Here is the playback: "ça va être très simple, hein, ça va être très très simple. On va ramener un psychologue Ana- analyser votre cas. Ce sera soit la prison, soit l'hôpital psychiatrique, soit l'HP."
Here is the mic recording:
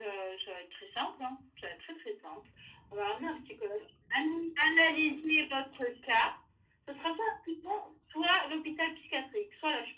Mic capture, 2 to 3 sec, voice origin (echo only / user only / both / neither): echo only